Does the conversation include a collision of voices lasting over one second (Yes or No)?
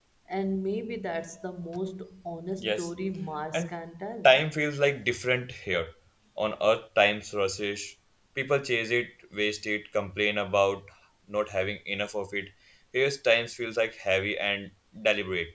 No